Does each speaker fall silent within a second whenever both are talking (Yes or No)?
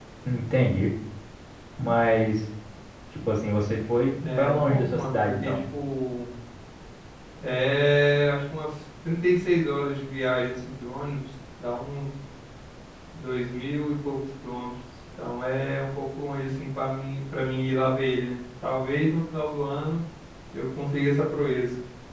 No